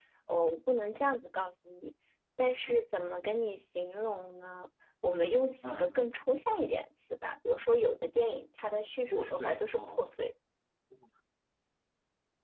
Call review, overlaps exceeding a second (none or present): present